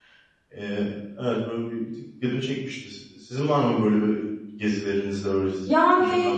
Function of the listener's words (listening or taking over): taking over